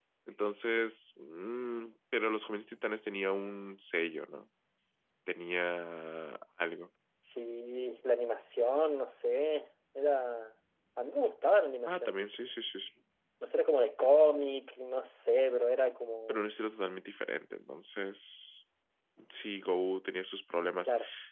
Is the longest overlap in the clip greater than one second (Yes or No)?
No